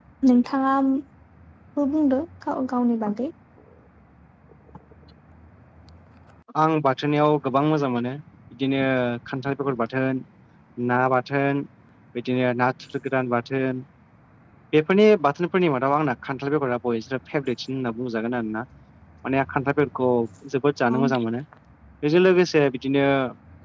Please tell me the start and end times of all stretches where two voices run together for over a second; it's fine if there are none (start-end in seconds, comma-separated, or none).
none